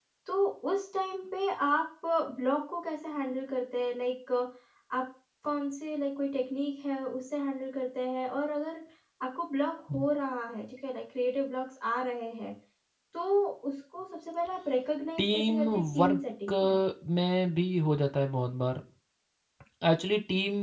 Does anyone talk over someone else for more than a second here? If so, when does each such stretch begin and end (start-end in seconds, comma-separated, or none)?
15.2-16.5